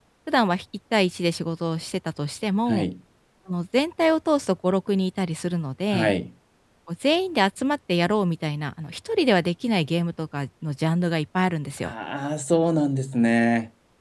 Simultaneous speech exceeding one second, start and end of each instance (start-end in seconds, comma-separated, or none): none